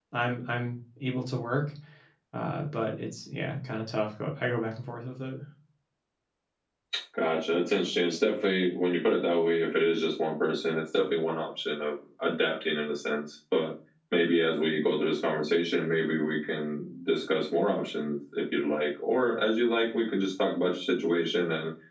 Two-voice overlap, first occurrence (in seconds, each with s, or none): none